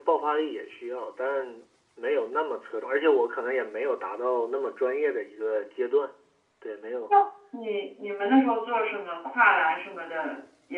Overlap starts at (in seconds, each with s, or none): none